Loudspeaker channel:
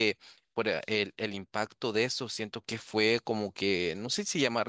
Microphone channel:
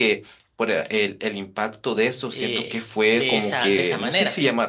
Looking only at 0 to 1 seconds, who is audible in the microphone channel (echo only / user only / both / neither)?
echo only